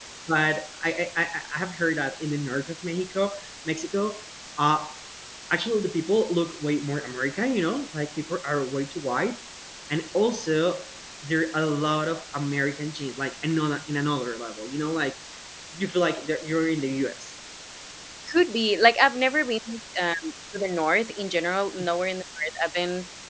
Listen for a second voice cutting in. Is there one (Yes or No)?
No